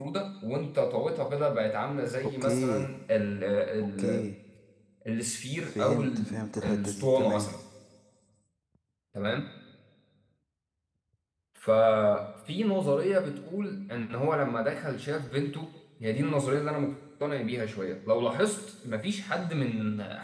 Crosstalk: present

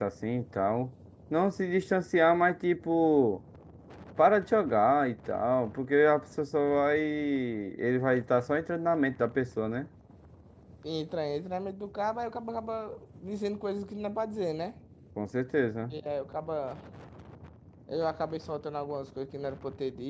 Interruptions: none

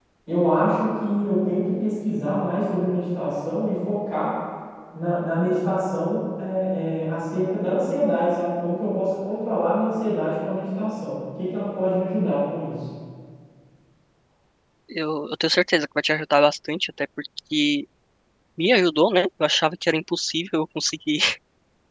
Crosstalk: none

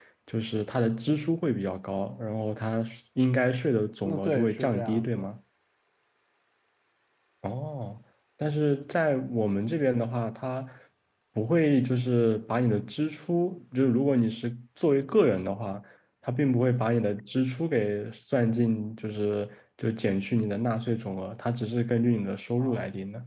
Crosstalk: present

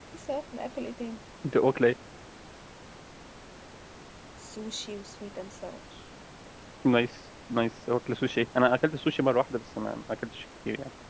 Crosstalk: none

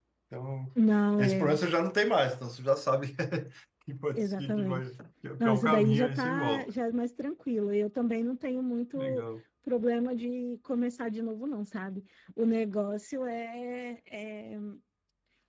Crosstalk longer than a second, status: present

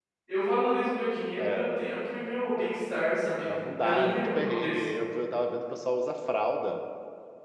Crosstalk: present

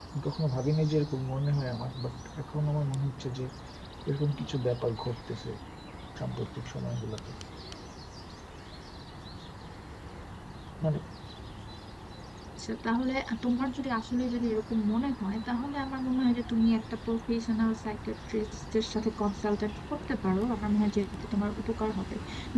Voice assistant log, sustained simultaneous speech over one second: none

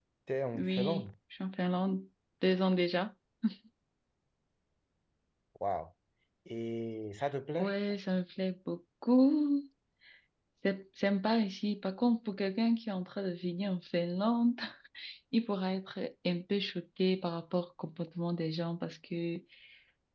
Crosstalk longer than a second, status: none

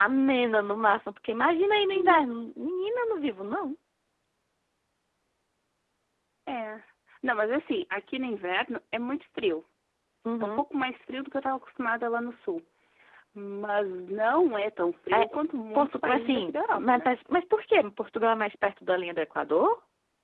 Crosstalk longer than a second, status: present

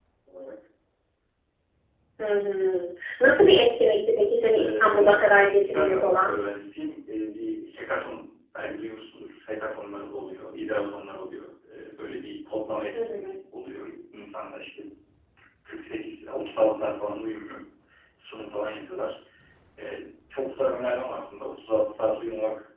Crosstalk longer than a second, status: present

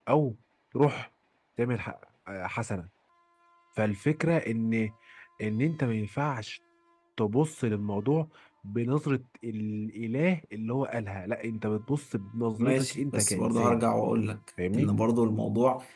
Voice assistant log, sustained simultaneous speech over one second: present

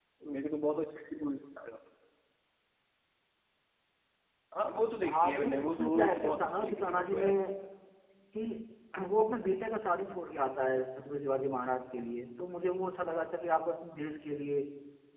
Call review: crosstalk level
present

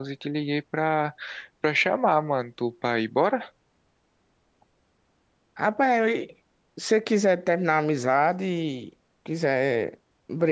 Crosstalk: none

